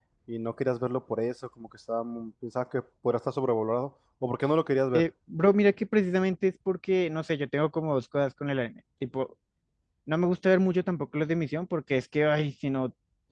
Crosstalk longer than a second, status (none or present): none